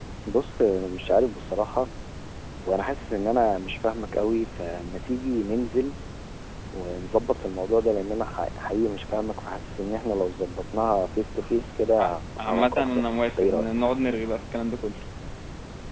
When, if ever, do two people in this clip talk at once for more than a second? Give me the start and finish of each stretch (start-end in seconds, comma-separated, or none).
12.4-13.7